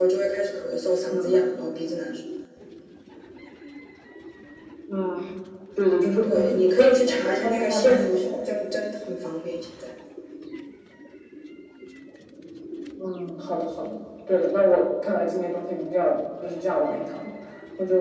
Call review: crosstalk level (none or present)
present